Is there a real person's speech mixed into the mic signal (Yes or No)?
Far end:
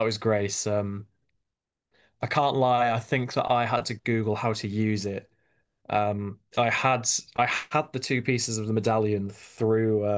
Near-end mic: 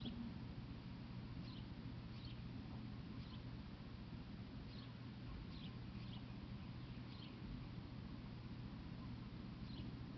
No